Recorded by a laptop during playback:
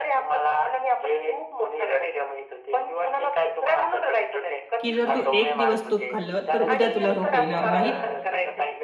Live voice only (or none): की "जर तू एक दिवस तूप खाल्लं, तर उद्या तुला रोप येणार नाहीत.